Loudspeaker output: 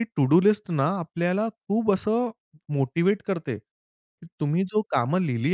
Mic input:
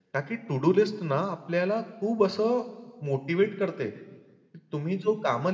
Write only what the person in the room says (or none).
none